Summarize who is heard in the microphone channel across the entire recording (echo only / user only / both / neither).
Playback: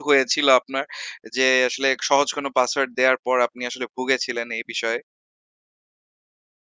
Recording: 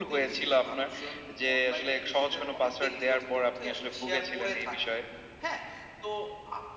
both